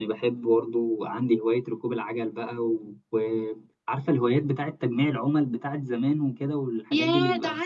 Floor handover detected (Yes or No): Yes